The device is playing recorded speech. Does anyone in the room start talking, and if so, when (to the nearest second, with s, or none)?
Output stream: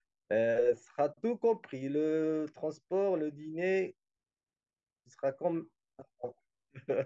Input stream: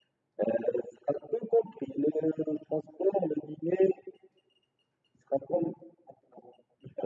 none